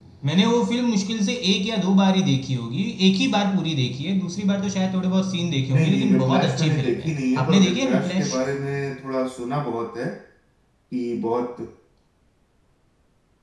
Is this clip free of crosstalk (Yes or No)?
No